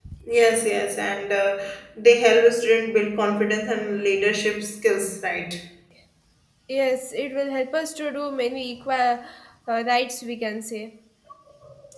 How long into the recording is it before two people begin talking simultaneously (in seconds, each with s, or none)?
none